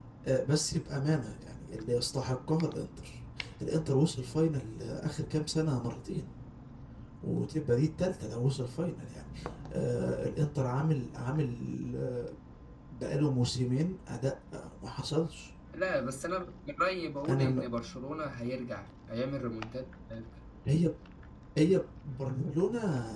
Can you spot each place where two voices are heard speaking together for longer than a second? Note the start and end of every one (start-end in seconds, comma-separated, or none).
none